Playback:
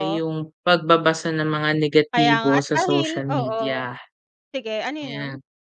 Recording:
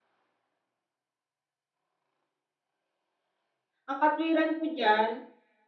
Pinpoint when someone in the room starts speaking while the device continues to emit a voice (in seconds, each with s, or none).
3.9 s